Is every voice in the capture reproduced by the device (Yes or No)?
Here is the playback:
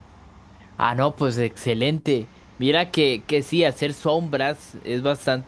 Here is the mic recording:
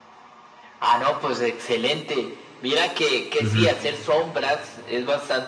No